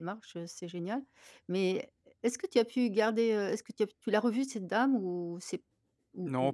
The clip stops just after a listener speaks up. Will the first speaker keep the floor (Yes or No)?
No